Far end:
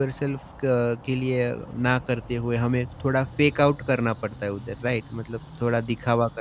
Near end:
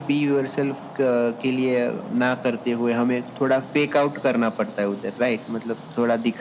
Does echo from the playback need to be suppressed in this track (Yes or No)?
Yes